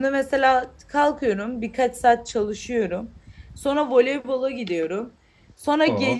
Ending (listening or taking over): listening